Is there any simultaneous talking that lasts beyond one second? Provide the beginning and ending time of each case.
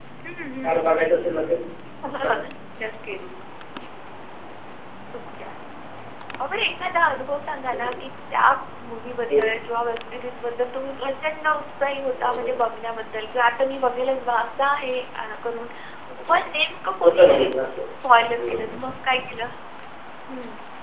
none

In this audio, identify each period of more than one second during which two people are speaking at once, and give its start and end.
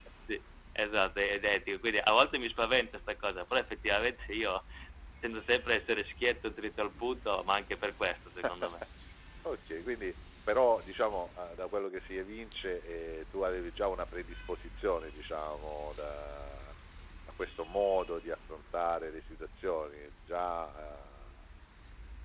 none

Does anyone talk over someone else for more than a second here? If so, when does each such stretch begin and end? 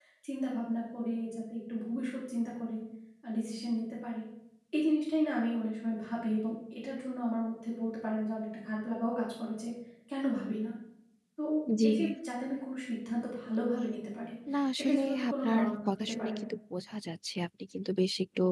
14.8-16.4

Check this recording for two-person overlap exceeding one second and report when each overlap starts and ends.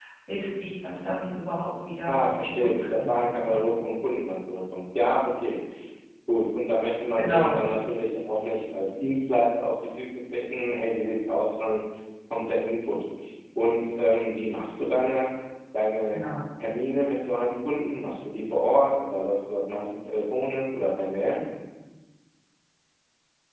2.1-3.6

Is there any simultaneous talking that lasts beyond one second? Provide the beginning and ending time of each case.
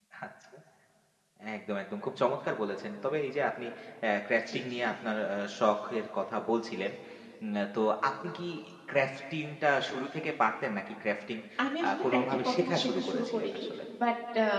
11.9-13.6

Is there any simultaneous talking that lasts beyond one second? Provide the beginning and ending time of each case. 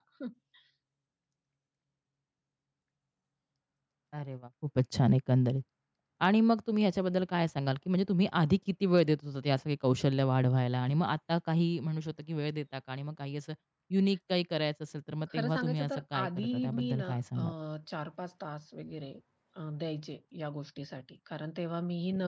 15.3-17.4

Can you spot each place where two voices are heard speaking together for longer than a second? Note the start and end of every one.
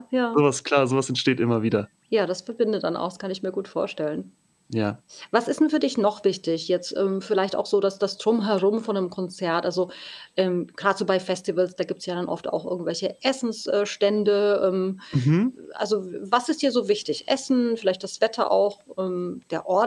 none

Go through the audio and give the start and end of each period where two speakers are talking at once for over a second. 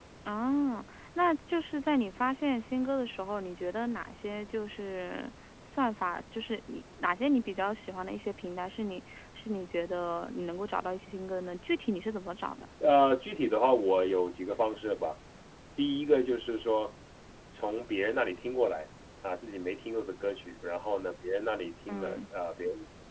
none

